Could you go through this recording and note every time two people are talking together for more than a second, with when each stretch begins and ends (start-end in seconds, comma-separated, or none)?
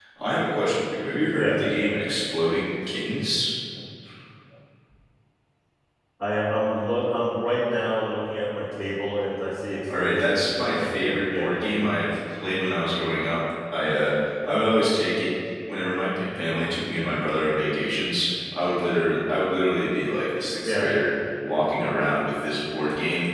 10.0-11.5